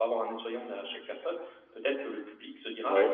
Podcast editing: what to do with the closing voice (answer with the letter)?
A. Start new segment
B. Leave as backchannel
B